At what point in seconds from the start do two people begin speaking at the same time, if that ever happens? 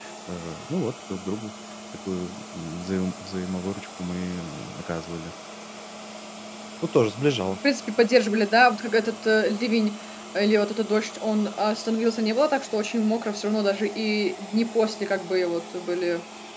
none

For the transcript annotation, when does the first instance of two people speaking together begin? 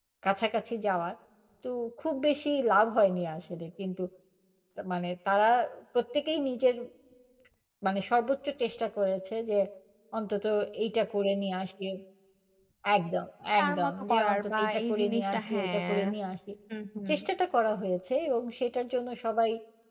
14 s

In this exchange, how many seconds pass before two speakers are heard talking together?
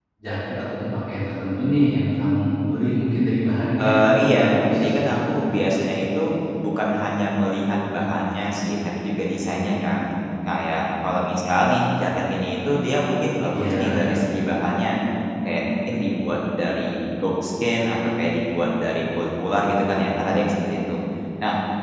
4 s

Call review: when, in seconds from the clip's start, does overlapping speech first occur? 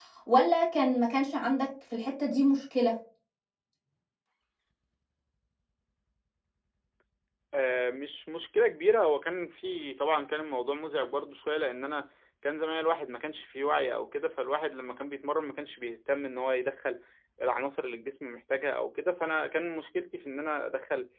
none

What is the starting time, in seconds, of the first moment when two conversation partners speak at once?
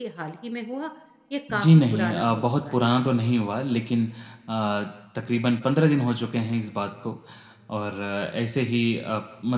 2 s

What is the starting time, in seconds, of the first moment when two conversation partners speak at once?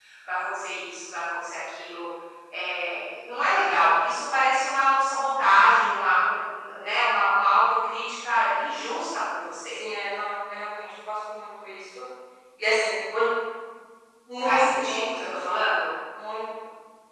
14 s

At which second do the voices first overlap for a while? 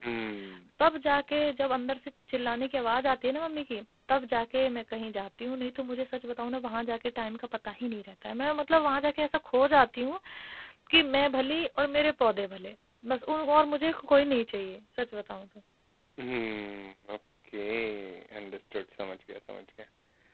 none

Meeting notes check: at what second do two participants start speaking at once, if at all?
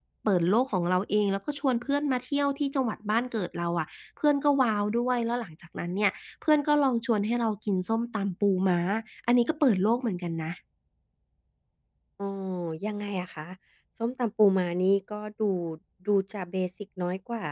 none

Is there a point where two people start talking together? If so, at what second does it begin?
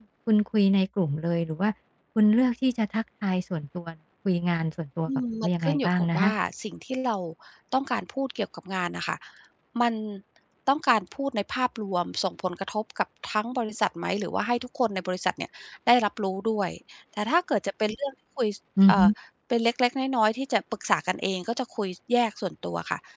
5 s

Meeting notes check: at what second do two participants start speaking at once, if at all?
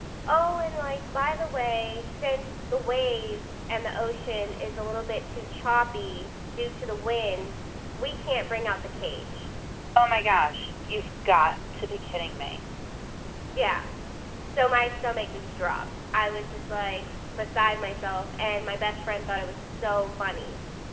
none

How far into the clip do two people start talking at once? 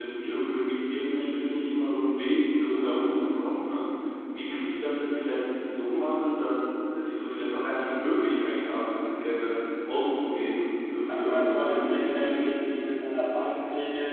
11 s

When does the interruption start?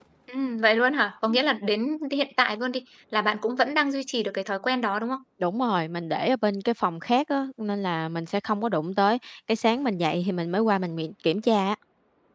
none

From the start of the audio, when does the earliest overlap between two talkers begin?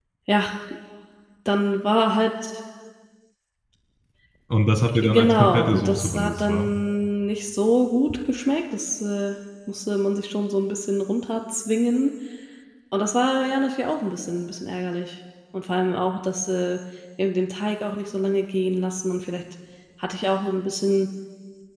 5 s

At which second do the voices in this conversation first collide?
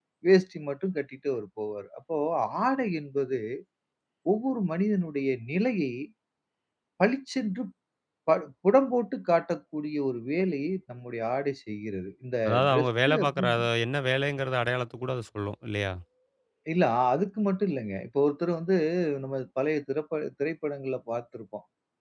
12 s

